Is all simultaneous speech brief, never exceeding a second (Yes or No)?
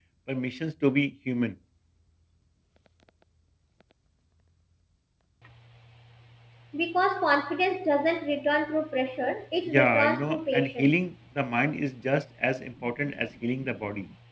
No